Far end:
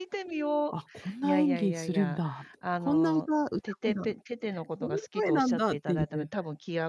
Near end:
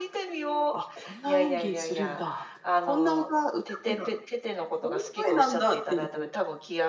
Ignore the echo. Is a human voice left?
No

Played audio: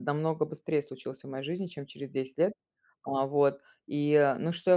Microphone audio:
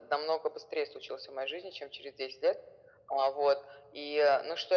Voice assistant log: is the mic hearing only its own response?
Yes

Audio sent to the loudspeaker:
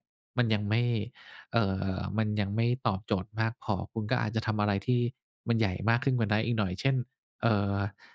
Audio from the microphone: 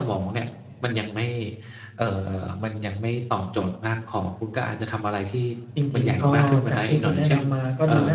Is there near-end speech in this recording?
Yes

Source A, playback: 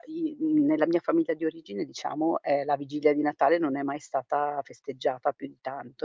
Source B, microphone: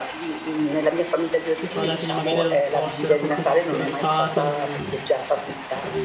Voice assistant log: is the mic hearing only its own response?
No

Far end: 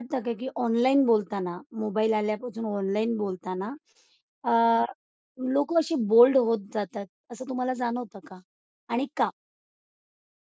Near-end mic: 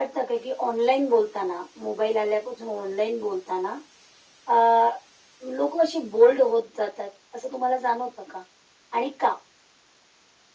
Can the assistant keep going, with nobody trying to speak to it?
Yes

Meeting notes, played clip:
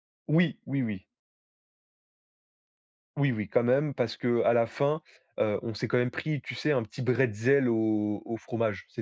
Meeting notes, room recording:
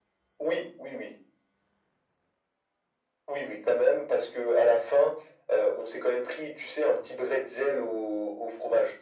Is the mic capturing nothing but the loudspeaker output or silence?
Yes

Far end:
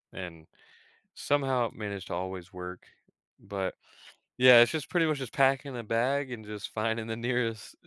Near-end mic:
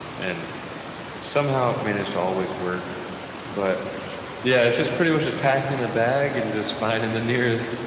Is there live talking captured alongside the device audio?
No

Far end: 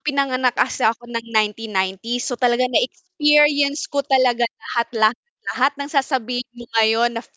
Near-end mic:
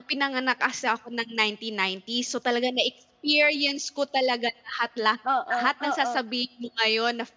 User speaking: Yes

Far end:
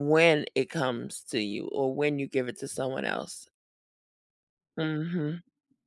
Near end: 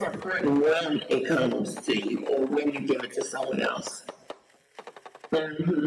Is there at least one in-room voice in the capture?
No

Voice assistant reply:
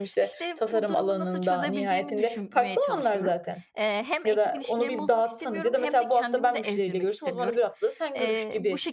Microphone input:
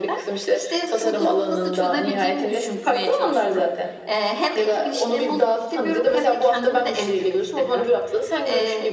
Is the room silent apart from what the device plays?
Yes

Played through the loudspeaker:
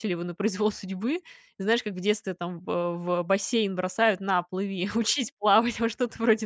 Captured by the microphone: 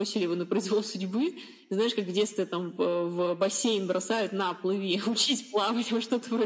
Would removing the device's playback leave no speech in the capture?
Yes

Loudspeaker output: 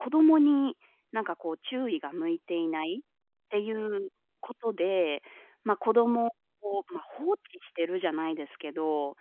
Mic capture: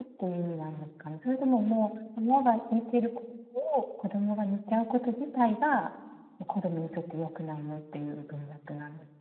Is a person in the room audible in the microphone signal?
Yes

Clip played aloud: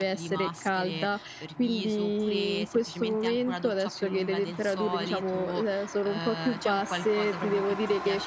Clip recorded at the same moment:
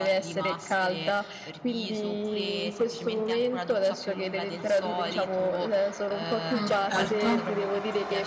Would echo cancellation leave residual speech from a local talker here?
Yes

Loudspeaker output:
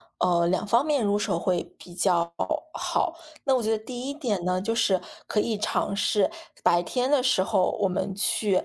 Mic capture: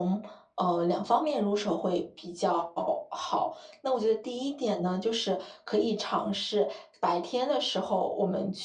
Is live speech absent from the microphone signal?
Yes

